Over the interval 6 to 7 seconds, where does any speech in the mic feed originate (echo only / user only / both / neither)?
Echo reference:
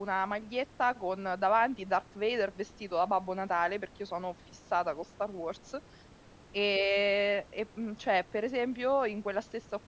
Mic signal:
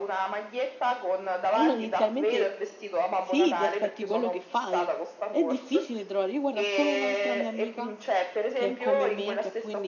both